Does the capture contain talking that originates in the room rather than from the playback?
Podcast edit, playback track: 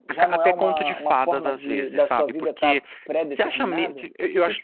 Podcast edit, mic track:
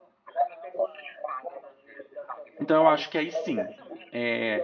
Yes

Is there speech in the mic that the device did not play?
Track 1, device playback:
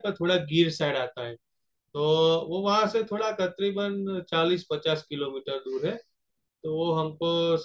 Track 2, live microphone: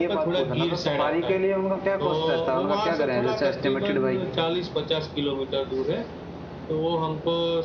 Yes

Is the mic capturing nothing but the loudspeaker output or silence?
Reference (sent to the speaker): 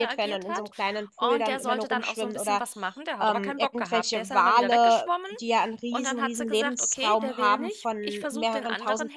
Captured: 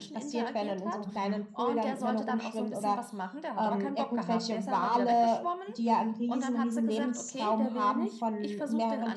No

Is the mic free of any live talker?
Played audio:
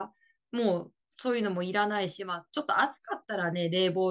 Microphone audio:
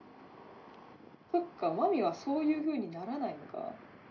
No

